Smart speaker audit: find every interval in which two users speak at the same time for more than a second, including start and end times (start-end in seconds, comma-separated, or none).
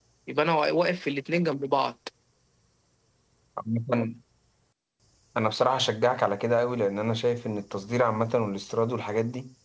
none